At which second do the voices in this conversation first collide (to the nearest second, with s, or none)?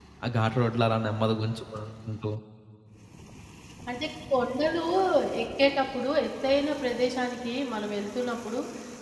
none